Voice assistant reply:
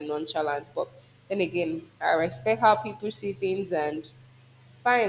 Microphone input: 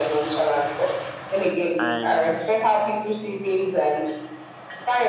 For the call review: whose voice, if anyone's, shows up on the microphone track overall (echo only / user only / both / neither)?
both